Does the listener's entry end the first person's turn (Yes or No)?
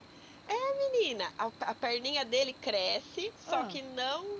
No